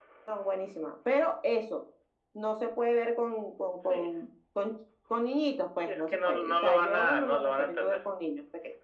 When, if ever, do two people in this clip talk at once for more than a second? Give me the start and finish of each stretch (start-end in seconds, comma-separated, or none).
5.9-8.0